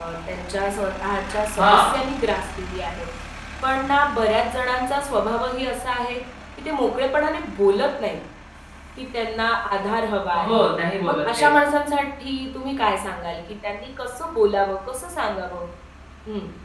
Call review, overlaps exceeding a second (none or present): none